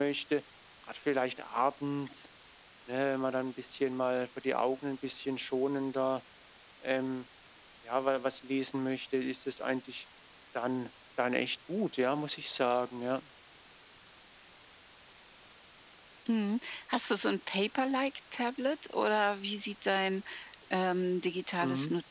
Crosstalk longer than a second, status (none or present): none